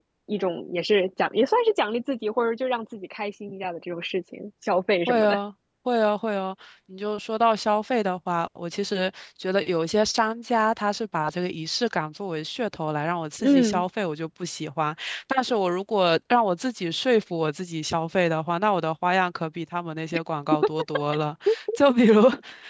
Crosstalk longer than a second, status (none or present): none